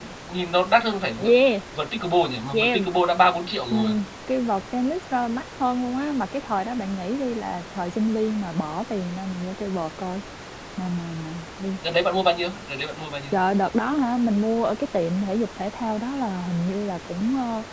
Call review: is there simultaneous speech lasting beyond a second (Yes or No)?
No